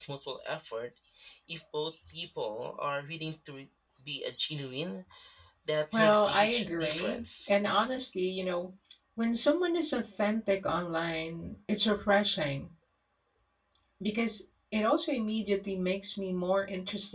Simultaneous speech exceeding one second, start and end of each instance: 5.9-7.5

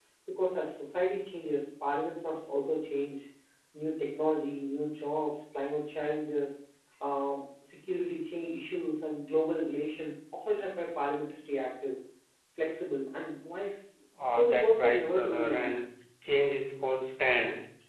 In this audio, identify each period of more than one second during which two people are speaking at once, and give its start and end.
14.3-15.8

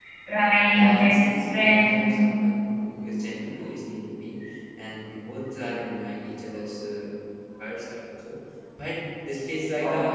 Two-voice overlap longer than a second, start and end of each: 0.7-2.0

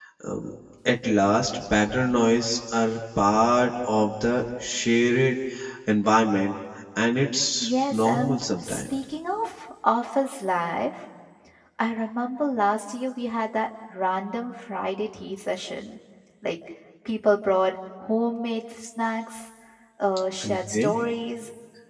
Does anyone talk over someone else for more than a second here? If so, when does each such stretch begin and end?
7.6-8.8

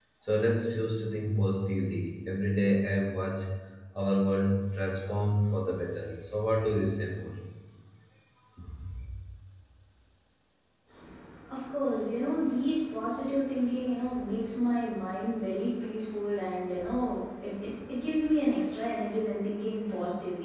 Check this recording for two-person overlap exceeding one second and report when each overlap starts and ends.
none

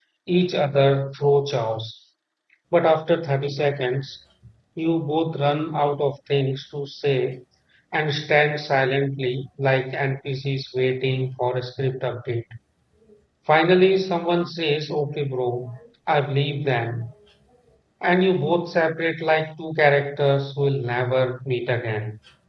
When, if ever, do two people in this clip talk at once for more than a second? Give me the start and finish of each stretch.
none

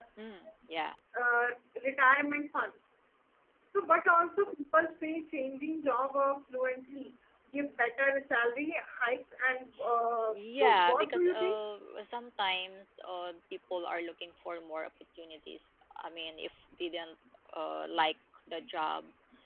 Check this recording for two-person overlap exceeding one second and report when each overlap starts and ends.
10.3-11.6

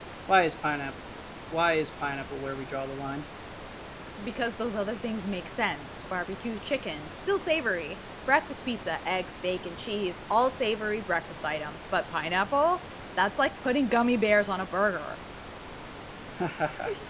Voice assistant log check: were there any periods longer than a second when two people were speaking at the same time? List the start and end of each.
none

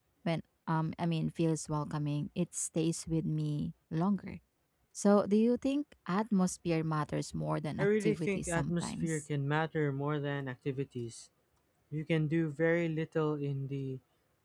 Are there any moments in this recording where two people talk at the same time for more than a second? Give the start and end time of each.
7.8-9.2

